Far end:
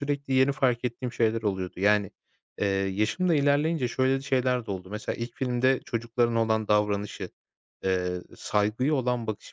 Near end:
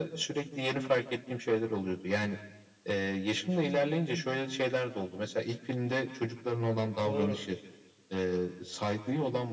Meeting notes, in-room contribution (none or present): present